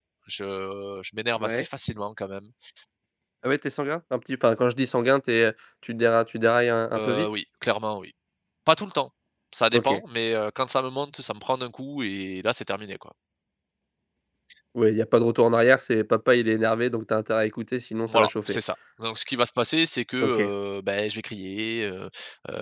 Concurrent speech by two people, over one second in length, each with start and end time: none

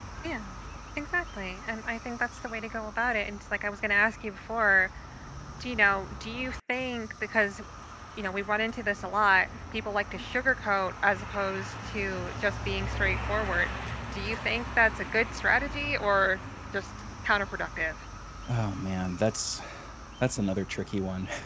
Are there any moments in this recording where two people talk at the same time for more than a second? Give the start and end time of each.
none

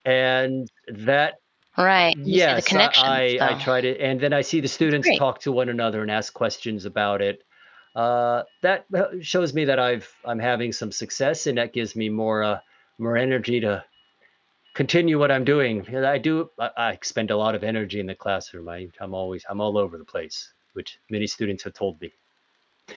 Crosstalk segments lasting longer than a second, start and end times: 2.3-3.6

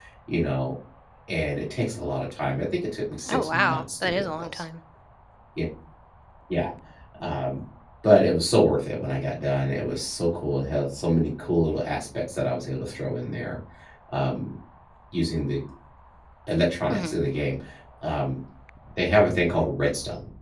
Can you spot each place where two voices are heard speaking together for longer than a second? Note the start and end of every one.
3.3-4.6

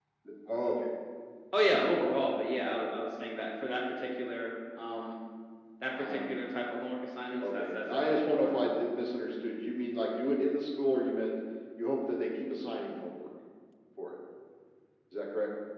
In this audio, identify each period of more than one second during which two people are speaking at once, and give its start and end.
7.4-8.6

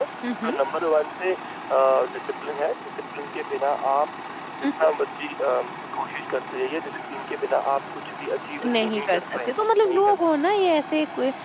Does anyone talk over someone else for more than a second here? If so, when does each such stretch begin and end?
8.7-10.1

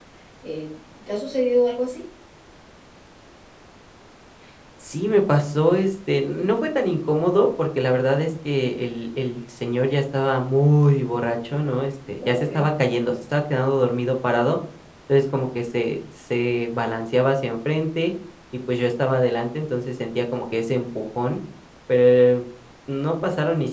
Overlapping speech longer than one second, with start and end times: none

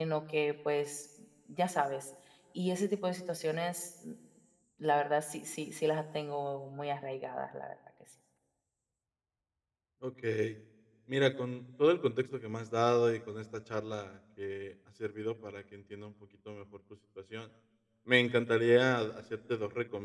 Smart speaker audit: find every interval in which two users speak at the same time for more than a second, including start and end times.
none

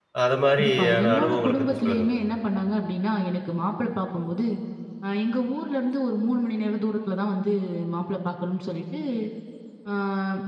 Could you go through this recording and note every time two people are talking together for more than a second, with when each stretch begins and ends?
0.6-2.2

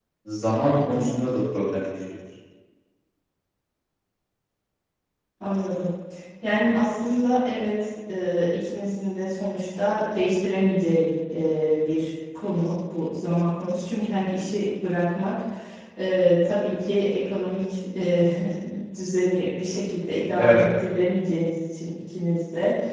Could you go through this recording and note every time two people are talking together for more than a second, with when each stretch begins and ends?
none

